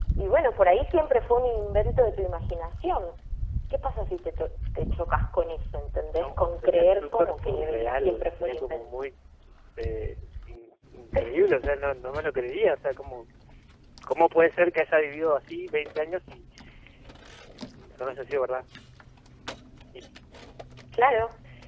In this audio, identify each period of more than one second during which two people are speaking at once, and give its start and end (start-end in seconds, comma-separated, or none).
6.1-8.9